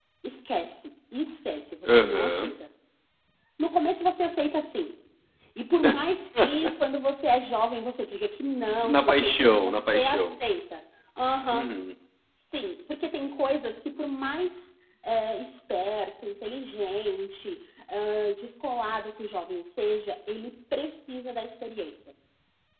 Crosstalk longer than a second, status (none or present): present